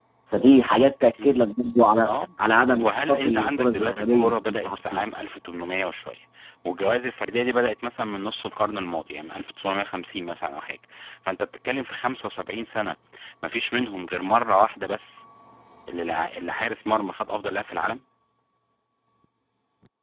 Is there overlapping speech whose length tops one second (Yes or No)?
Yes